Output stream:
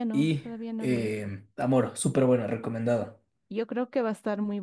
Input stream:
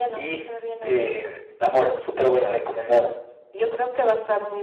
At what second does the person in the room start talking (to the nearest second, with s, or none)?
none